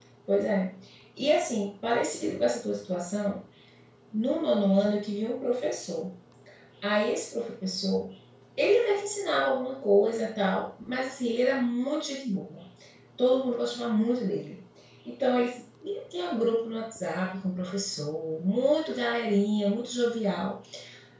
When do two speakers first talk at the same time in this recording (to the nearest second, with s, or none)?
none